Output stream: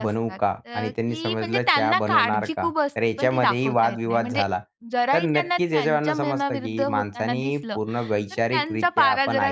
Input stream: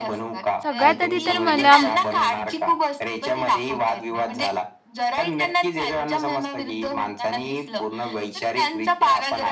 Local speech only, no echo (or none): सगळ्यात आधी तर मला म